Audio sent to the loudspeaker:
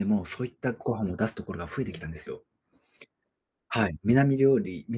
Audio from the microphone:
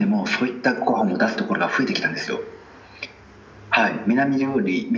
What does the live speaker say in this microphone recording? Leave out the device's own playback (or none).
none